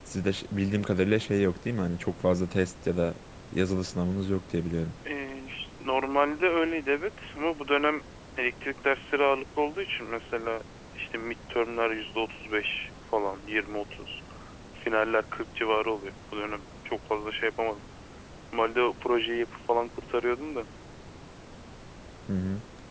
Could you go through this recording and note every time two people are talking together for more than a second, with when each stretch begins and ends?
none

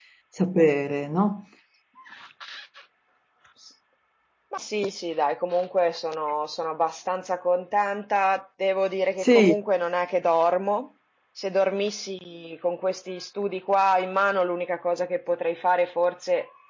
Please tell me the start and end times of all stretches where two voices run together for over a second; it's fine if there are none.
none

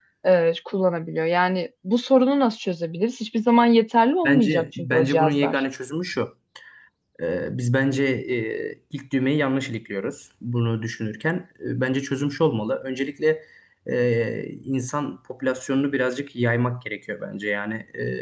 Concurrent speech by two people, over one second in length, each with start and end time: 4.2-5.6

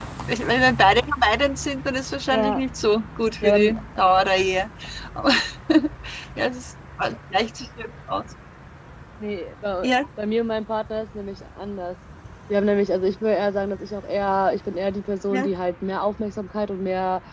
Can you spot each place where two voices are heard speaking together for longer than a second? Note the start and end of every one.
none

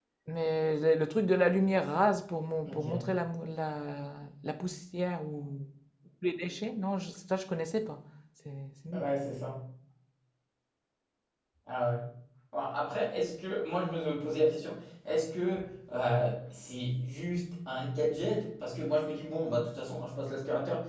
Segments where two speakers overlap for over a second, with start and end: none

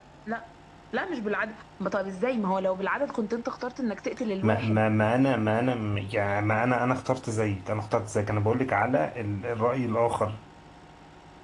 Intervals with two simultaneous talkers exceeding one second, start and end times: none

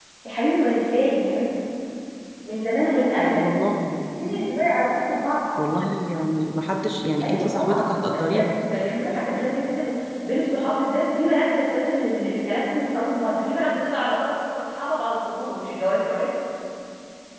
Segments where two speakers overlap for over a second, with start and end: 7.2-8.4

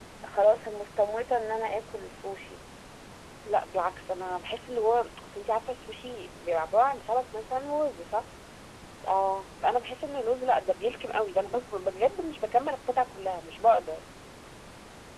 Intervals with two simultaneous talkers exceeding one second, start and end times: none

